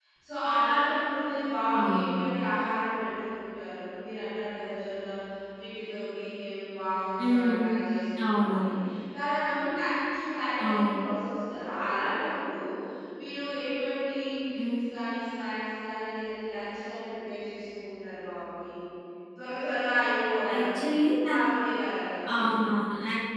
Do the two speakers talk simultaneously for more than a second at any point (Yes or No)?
No